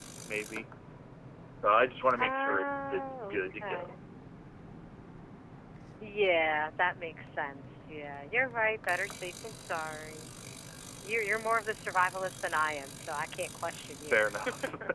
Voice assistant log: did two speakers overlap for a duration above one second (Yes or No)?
Yes